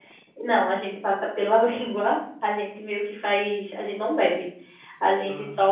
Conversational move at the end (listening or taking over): listening